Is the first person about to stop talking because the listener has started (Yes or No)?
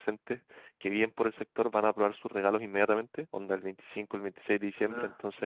No